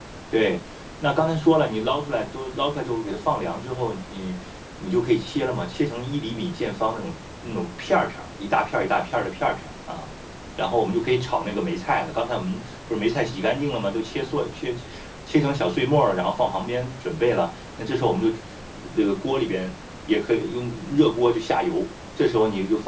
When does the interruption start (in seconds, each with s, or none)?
none